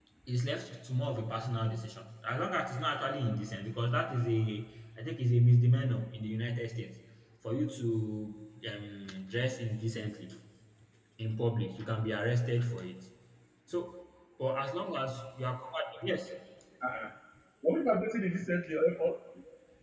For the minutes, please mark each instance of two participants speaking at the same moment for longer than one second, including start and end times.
none

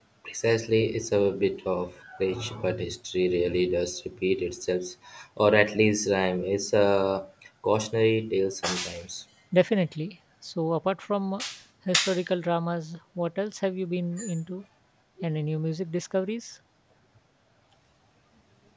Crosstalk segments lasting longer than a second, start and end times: none

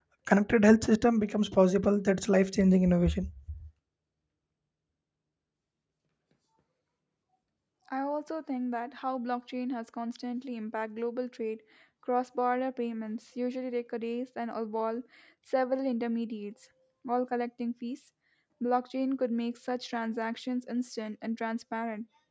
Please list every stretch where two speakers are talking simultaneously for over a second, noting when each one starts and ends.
none

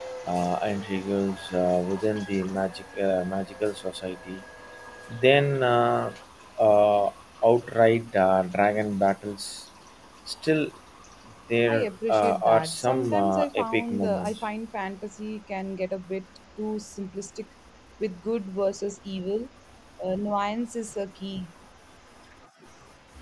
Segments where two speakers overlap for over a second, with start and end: 11.7-14.4

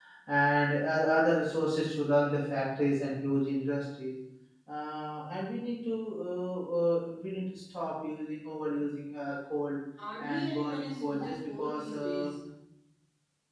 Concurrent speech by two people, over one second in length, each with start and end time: 10.2-12.3

